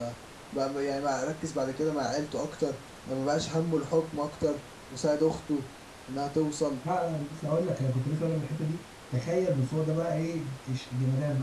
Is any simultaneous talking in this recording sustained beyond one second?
No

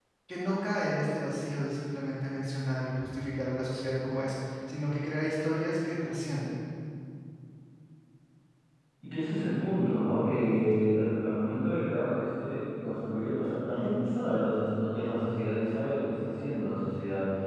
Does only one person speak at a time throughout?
Yes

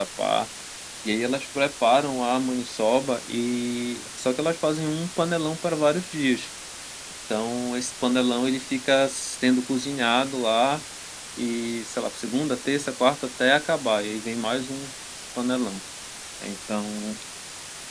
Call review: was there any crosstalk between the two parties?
No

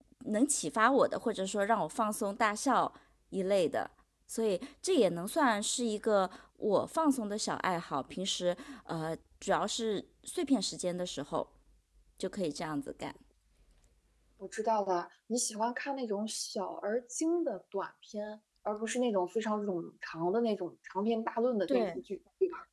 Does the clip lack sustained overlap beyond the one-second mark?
Yes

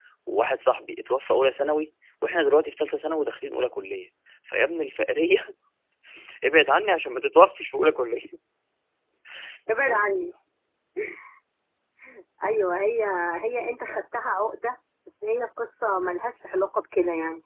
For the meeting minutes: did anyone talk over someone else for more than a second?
No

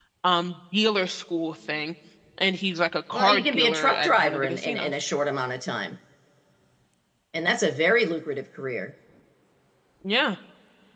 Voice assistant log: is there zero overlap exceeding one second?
No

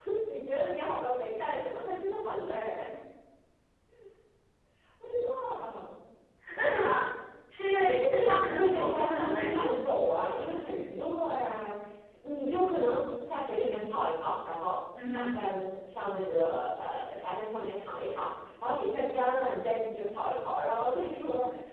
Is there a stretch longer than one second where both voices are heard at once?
Yes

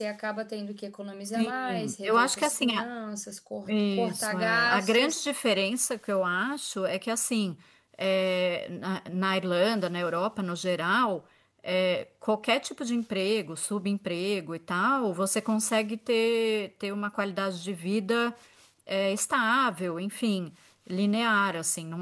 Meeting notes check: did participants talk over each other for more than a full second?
Yes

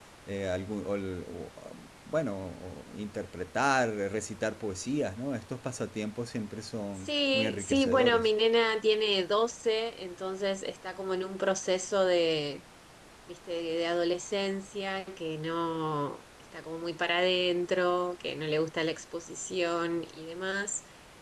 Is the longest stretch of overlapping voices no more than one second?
No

